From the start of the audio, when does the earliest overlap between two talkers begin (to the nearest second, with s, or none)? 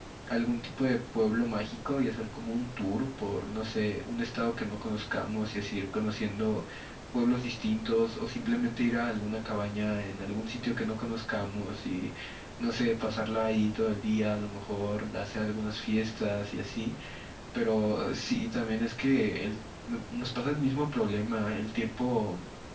none